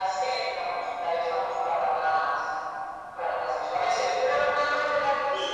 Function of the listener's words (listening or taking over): taking over